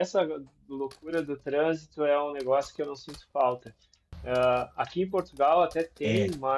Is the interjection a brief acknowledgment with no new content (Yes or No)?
Yes